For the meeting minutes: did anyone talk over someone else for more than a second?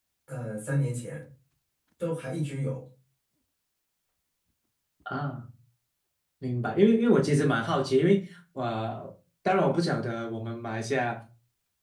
No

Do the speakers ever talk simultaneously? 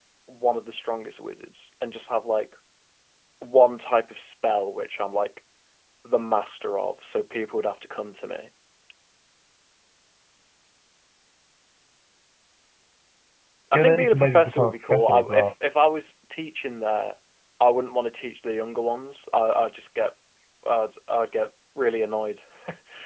Yes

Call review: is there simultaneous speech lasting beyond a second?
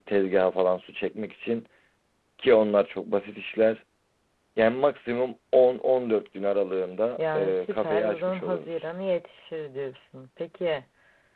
Yes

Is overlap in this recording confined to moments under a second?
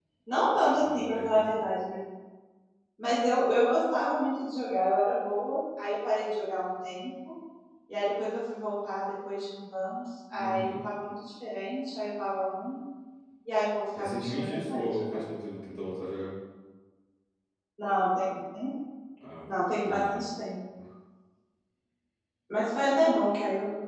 No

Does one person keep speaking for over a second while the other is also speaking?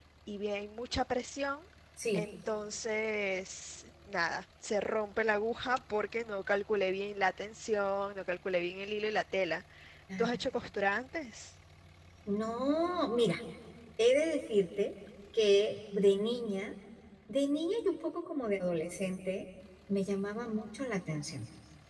No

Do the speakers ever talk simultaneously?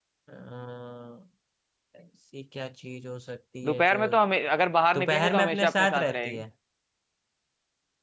Yes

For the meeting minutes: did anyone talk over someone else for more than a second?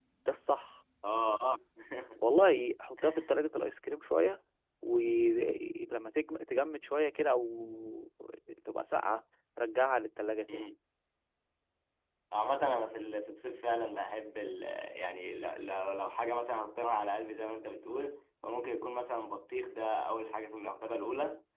No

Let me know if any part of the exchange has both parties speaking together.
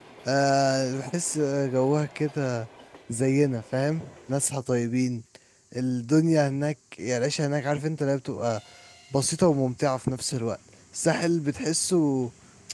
No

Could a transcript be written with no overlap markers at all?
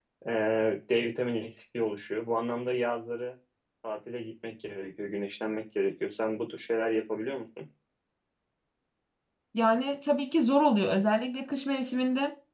Yes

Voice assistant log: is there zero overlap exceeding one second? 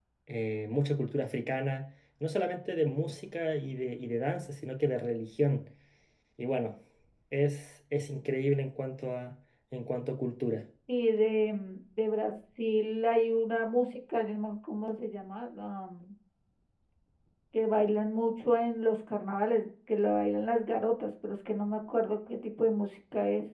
Yes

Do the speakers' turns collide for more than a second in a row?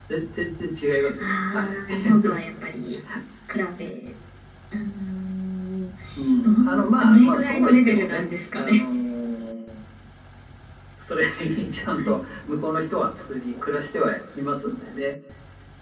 Yes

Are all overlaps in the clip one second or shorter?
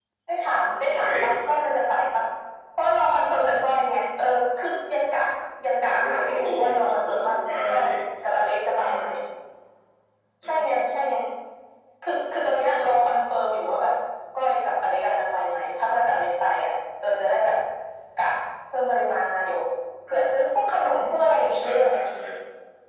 No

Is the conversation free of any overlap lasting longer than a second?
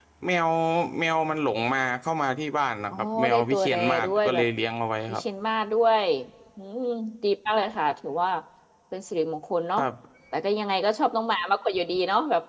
No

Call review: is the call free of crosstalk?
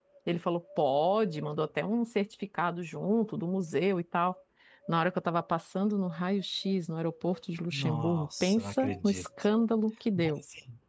No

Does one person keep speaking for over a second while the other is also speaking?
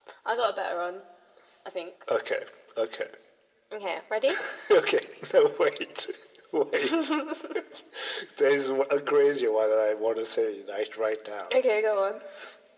No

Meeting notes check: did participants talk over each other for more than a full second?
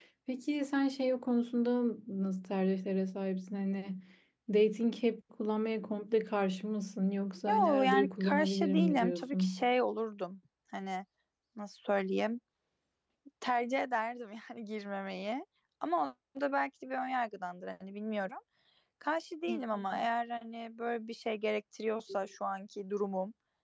Yes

